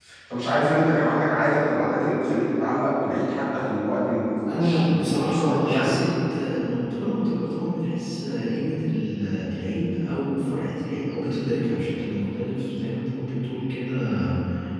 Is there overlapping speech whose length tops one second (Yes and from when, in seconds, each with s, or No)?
Yes, from 4.5 s